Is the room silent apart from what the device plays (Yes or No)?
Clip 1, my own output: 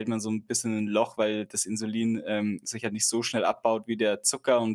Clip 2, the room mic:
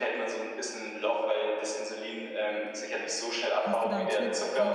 No